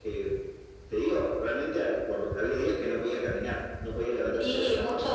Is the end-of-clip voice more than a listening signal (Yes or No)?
Yes